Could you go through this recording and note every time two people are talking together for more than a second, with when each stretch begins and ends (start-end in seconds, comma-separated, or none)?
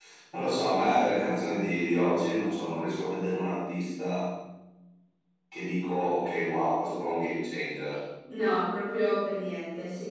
none